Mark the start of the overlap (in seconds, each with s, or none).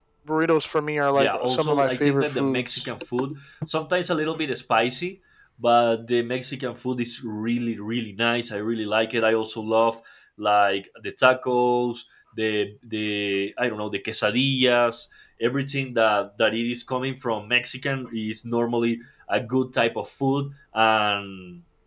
1.2 s